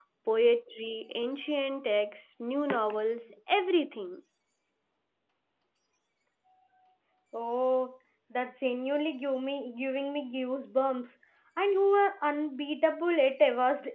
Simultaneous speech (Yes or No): No